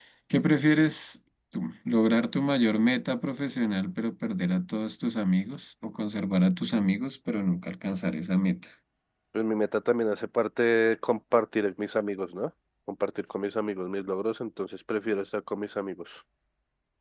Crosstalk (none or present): none